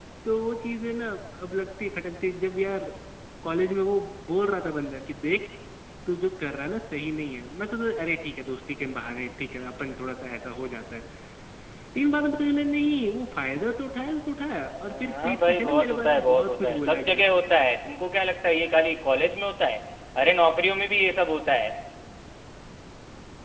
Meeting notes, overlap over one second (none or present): present